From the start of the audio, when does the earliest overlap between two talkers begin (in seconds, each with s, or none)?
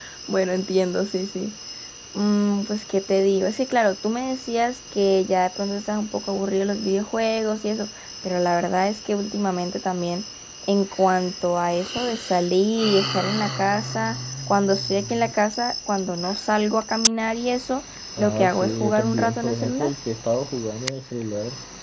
18.2 s